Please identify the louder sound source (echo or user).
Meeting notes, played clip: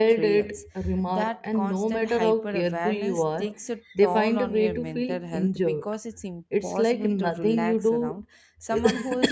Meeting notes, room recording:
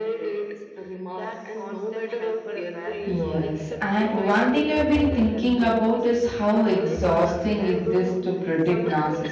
user